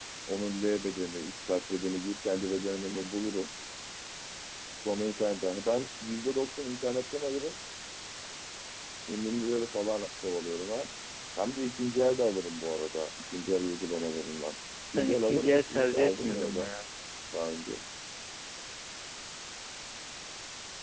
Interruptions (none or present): present